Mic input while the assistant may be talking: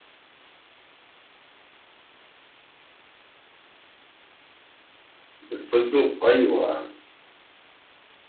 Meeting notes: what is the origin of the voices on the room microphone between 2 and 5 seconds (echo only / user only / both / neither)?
neither